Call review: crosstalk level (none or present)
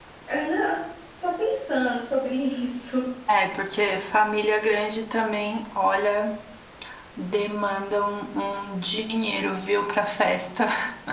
none